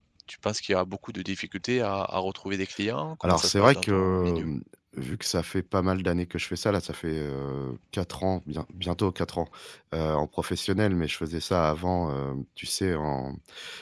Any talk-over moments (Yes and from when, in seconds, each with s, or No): Yes, from 3.2 s